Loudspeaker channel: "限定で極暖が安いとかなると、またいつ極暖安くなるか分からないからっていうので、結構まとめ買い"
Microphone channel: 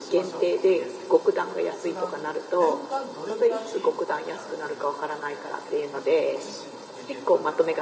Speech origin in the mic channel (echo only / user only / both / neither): both